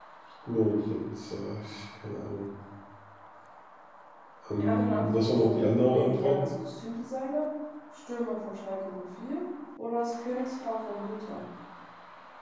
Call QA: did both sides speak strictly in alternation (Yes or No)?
No